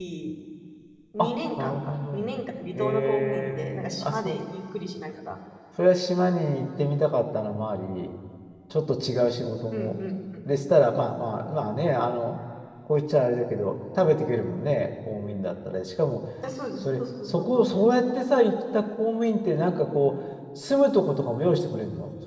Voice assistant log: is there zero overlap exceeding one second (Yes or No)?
No